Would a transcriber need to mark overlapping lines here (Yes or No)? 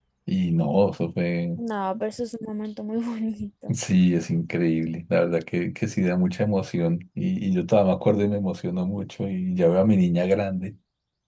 No